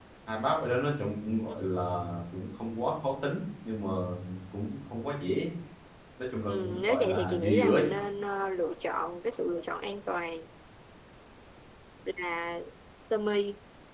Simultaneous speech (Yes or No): Yes